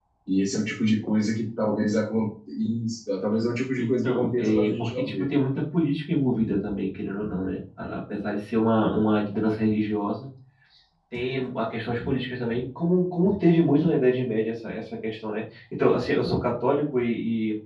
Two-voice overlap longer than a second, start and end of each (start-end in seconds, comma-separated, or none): 3.8-5.3